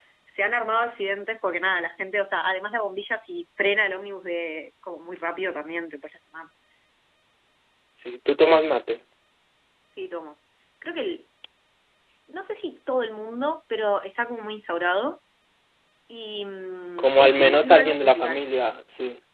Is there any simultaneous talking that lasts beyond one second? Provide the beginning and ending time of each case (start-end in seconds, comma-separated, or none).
17.0-18.4